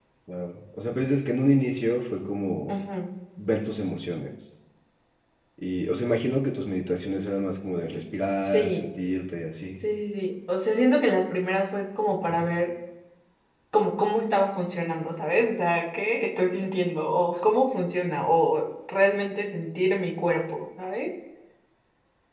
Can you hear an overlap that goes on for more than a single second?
No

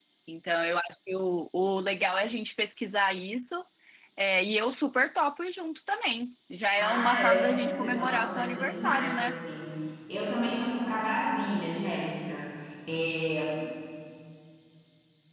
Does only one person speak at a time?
No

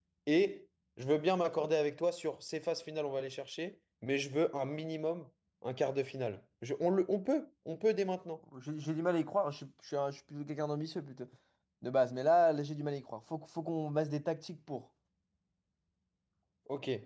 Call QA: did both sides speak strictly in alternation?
Yes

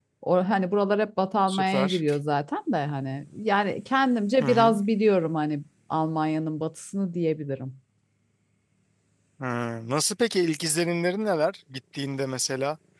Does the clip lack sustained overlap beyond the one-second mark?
Yes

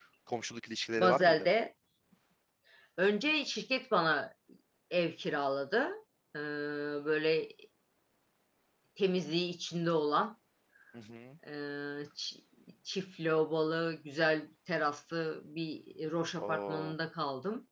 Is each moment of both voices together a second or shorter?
Yes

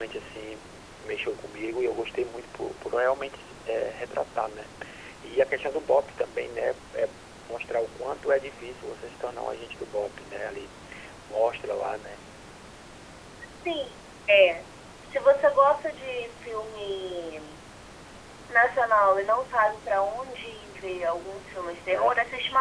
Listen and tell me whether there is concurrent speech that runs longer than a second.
No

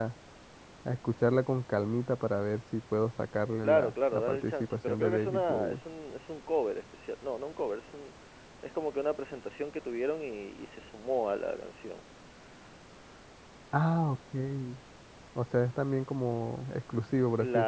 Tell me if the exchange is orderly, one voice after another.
No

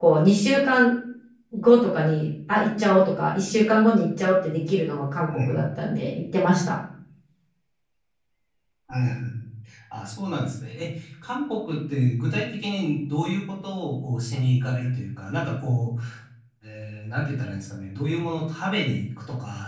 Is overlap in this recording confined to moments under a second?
Yes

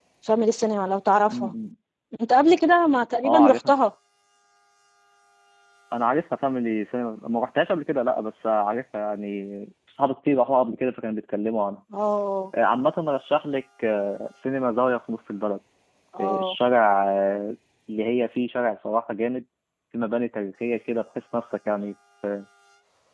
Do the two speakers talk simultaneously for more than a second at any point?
No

